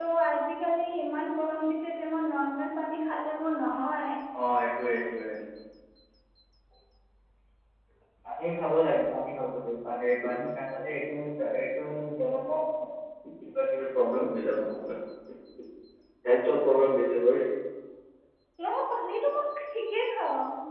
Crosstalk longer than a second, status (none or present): none